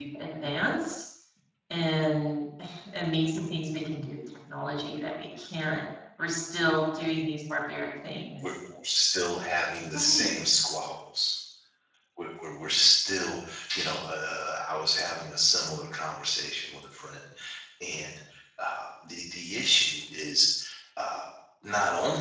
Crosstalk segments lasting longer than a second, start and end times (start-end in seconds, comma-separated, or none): none